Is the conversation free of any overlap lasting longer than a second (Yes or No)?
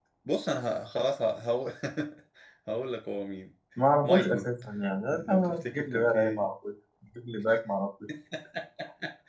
No